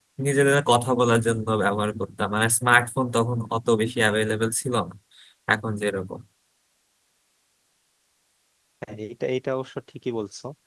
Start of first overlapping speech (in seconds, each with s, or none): none